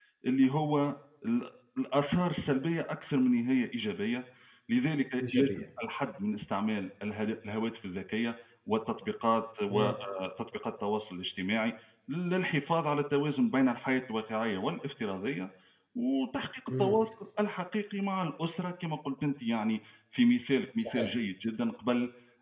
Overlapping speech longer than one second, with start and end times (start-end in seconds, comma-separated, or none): none